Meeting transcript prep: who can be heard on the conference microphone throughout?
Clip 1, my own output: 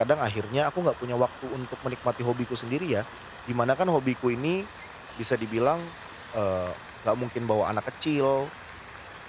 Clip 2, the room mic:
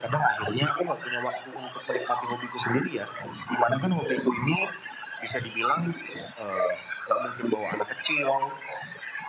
echo only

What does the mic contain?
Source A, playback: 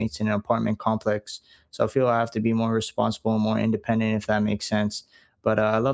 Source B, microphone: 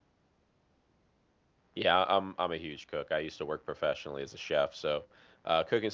user only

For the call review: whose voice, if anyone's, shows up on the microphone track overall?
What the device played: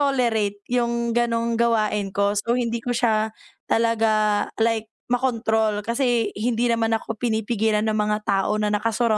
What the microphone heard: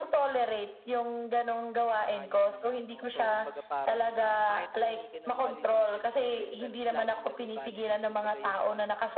both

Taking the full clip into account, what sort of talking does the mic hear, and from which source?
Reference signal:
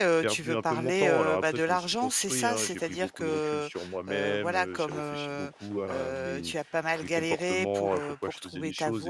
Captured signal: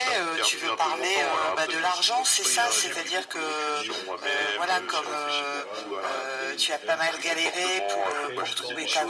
both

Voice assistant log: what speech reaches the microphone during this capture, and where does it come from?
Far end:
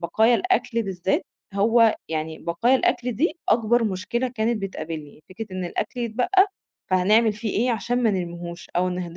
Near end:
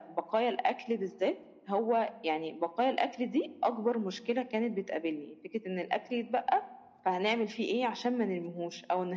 echo only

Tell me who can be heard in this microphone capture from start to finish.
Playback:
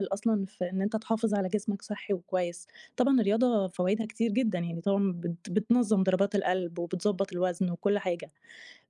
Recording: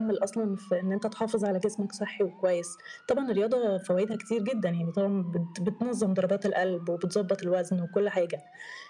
echo only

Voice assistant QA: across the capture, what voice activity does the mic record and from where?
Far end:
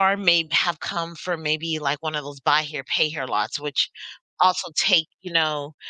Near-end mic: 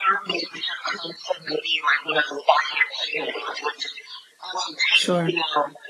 both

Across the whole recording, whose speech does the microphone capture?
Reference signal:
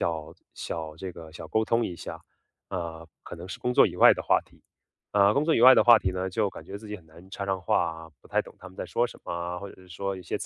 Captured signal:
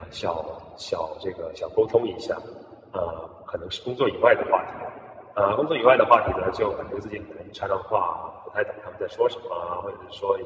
echo only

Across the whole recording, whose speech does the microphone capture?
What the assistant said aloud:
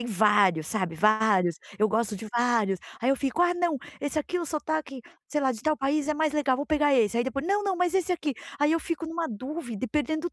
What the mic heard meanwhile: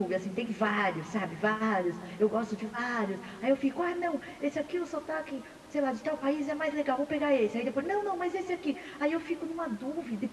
echo only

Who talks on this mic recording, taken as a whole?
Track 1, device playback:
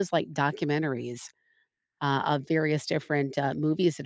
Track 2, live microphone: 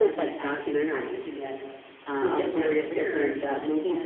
both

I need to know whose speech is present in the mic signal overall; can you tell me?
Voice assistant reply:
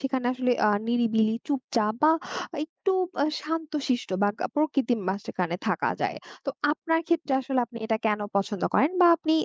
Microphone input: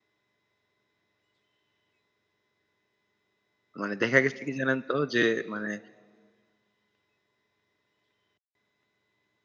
user only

